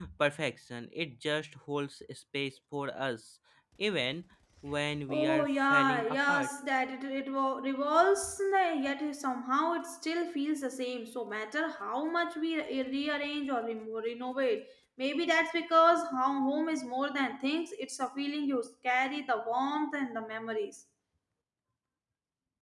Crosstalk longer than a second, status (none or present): present